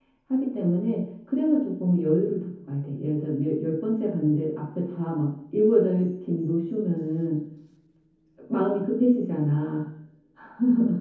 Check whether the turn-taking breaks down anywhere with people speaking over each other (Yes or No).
No